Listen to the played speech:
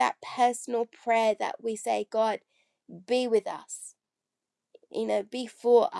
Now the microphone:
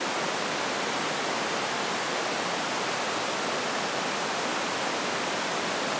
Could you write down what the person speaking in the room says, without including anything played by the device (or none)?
none